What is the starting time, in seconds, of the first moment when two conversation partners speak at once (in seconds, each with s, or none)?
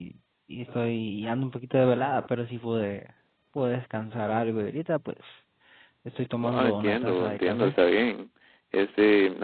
6.3 s